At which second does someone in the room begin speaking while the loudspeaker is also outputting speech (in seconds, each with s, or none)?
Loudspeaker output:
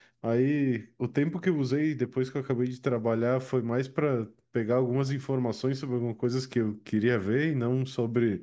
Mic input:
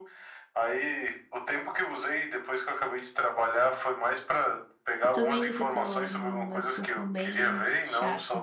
5.0 s